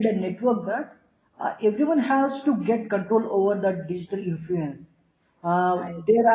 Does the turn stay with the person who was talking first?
Yes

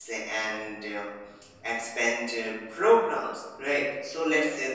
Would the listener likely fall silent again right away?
Yes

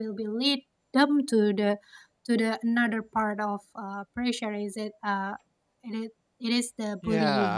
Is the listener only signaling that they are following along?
No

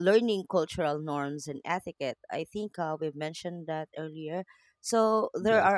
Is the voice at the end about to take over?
No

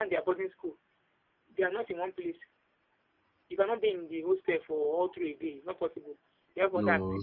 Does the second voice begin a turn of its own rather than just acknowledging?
No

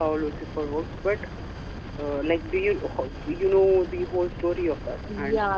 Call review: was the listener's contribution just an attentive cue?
No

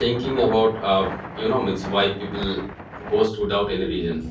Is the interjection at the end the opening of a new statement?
Yes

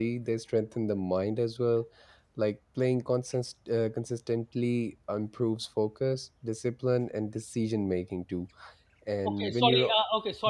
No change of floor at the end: No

